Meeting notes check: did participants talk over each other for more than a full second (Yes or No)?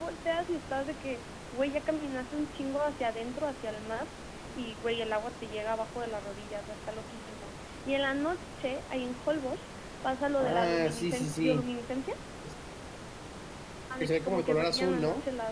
Yes